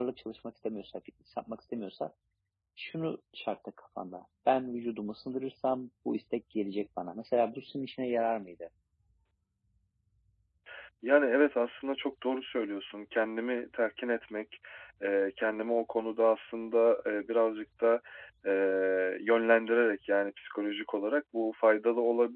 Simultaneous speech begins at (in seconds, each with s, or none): none